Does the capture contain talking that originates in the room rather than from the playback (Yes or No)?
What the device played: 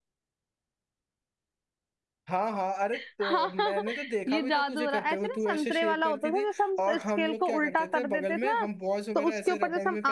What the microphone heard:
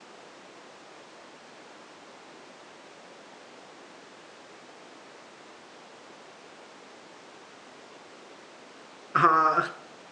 Yes